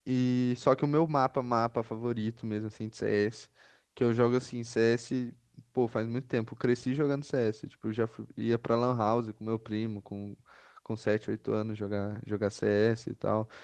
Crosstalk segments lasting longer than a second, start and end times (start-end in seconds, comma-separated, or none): none